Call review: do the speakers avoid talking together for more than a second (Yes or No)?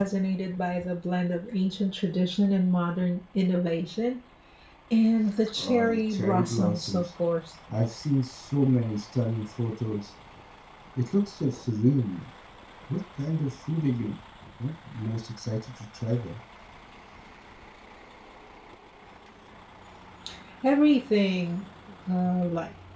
No